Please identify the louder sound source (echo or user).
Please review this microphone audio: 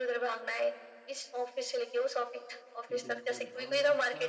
echo